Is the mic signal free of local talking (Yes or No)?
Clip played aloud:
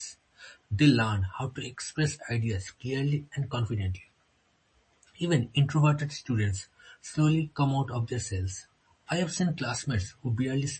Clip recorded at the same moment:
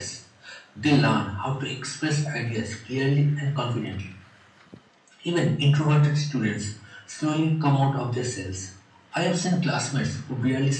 Yes